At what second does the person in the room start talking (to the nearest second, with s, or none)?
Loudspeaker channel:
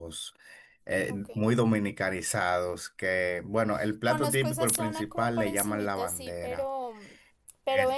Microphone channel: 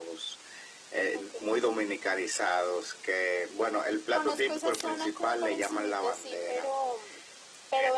none